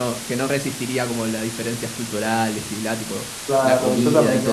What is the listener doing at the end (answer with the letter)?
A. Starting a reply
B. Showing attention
A